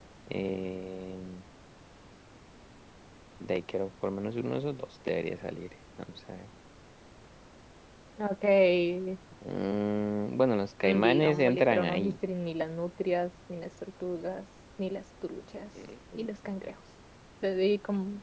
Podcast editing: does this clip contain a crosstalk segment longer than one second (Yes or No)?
Yes